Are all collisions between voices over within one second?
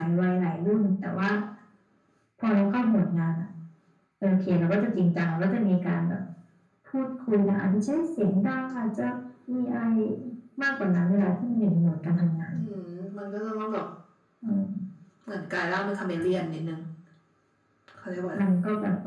Yes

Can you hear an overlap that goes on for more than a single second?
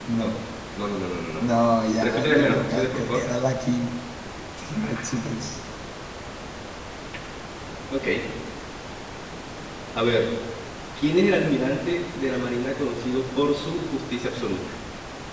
Yes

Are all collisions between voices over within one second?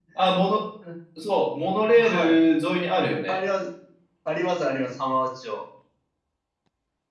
Yes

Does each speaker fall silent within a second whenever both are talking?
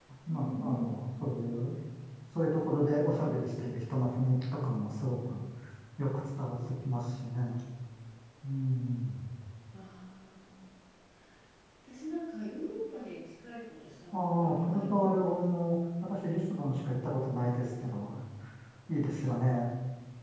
No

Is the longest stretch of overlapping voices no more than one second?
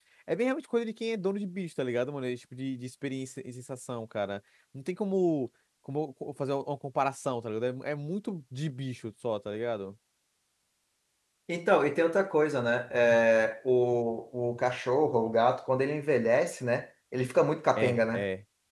Yes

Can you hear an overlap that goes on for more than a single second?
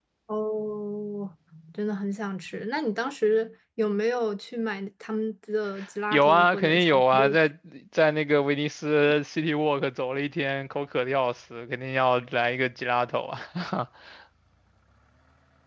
Yes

